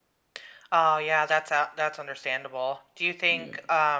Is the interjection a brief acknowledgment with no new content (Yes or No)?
Yes